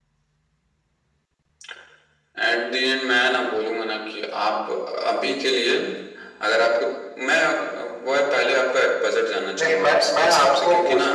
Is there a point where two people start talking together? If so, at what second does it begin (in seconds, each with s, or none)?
9.6 s